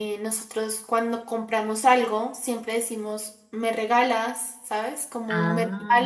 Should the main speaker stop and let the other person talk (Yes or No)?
No